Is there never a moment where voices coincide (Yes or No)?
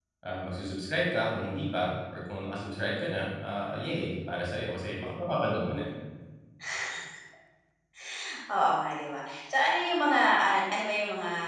Yes